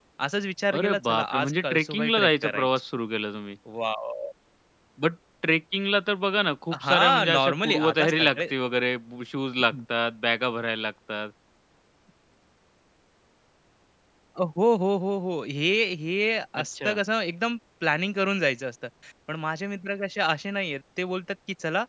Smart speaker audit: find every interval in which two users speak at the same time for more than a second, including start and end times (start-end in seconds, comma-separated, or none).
0.8-2.7, 6.8-8.5